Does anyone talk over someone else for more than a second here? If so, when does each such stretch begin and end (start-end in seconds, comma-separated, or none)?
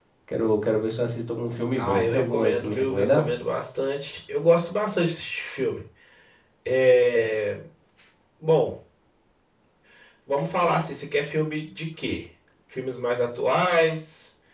1.8-3.3